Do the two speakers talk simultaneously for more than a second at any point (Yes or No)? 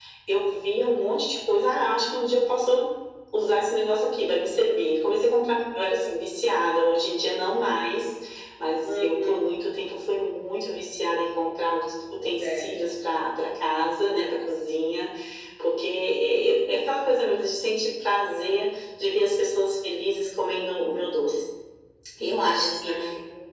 No